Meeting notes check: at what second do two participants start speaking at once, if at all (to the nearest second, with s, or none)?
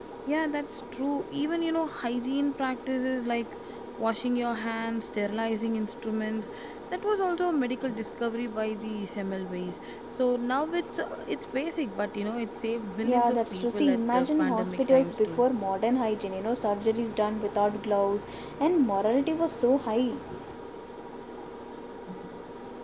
13 s